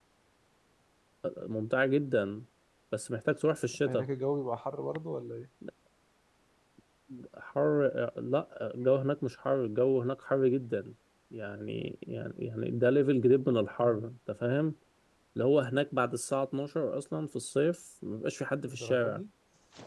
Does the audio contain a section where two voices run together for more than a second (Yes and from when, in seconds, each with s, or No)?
No